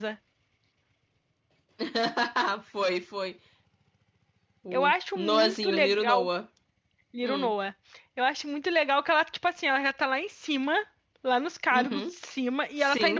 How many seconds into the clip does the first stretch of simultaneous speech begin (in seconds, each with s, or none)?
4.7 s